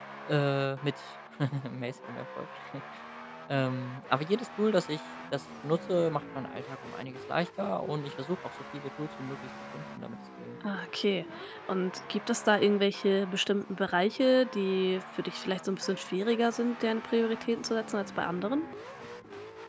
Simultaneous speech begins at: none

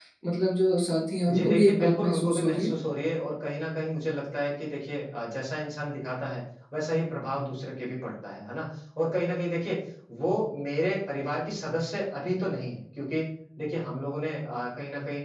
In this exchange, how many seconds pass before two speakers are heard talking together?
1 s

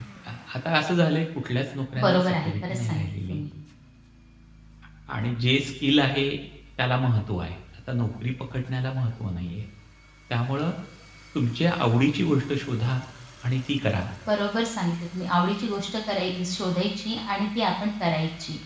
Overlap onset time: 2 s

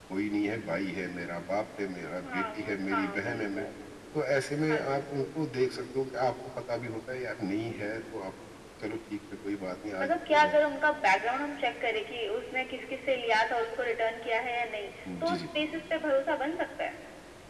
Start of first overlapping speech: 2 s

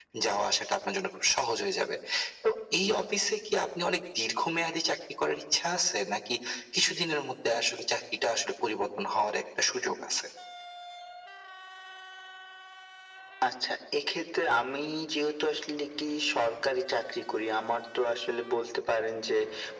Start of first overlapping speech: none

